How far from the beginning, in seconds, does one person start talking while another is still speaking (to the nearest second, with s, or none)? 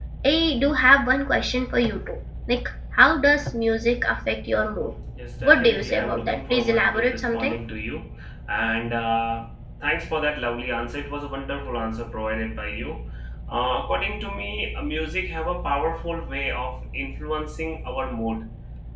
5 s